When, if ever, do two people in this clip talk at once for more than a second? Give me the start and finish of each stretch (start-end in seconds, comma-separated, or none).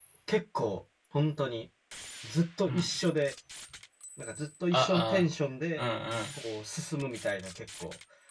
none